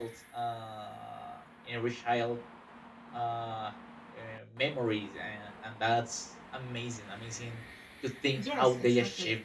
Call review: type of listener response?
taking over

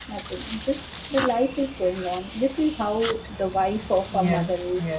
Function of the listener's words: taking over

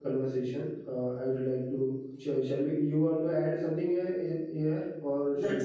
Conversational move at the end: taking over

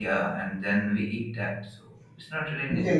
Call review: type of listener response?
taking over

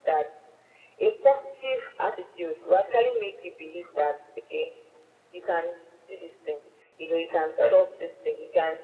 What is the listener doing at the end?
listening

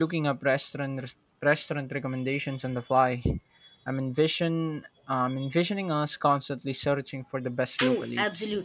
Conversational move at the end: taking over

